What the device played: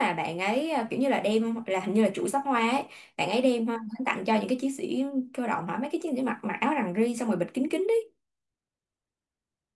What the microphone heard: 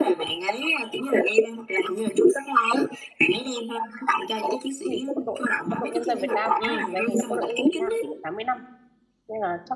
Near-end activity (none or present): present